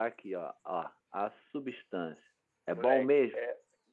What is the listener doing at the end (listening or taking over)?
taking over